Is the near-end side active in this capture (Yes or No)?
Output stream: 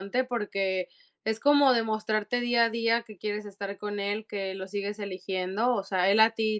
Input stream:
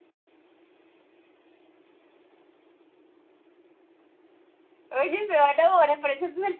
Yes